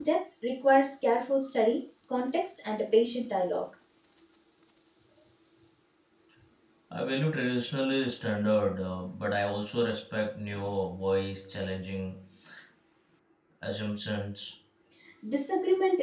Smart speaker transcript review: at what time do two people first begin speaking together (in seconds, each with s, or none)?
none